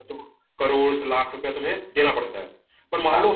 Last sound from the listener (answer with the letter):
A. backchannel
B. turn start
A